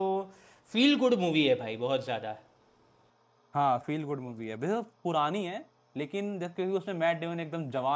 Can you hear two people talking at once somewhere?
No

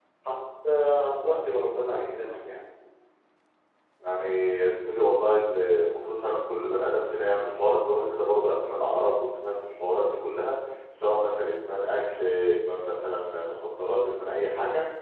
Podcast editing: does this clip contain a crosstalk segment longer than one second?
No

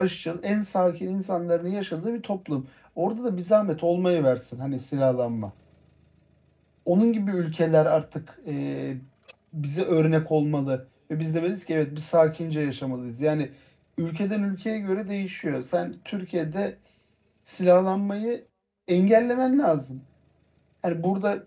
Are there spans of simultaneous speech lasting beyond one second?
No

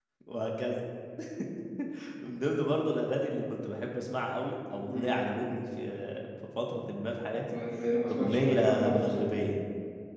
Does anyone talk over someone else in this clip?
Yes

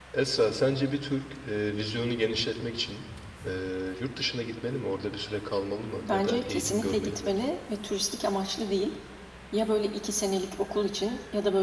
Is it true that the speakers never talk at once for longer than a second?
No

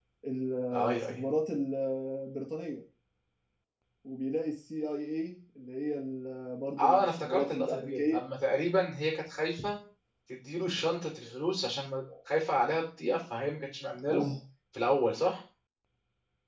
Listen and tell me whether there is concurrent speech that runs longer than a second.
Yes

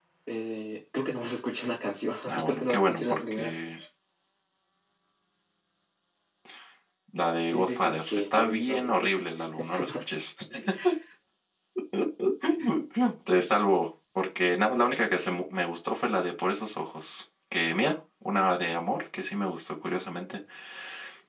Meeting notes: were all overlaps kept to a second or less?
No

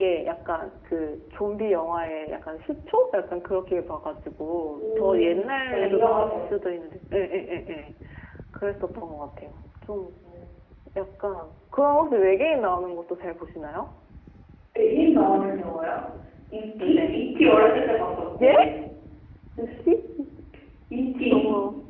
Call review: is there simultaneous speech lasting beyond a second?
Yes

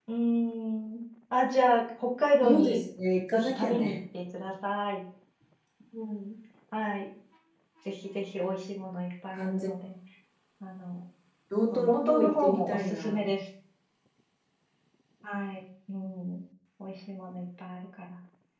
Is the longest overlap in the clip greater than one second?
Yes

